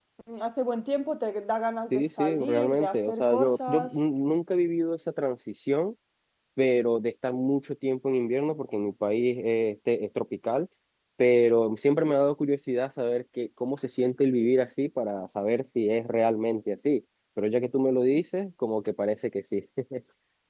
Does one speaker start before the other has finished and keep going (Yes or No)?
Yes